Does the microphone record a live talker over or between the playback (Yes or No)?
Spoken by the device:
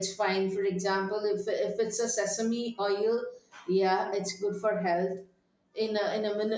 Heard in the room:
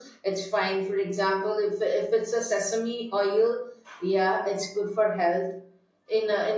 No